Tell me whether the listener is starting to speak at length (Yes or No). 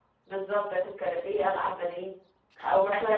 No